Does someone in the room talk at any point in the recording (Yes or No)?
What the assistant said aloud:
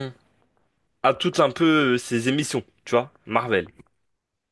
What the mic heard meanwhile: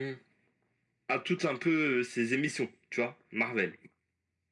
No